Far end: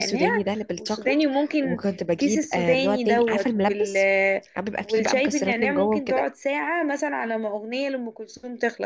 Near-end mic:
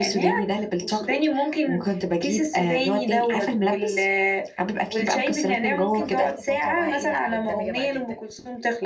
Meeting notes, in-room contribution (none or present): present